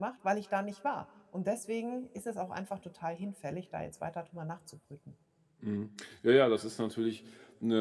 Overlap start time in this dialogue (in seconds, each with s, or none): none